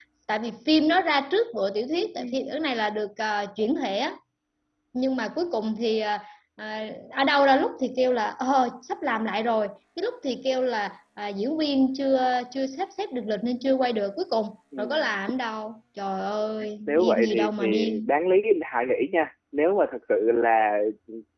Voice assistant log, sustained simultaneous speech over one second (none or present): present